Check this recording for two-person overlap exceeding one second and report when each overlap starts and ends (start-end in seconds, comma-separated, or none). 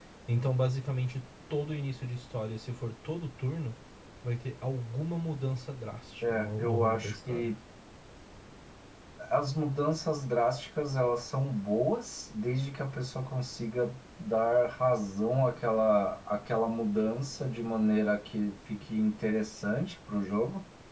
6.2-7.5